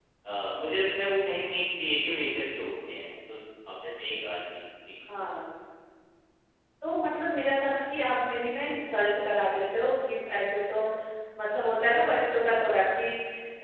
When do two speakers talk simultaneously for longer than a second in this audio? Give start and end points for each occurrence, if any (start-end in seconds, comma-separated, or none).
none